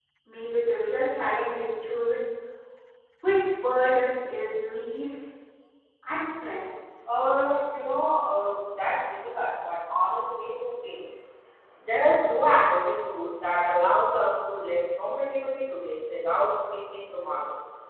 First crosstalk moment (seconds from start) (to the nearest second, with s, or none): none